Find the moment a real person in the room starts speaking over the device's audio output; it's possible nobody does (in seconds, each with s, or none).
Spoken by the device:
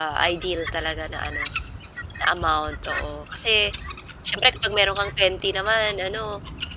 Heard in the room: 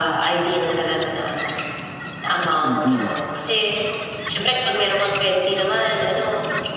2.6 s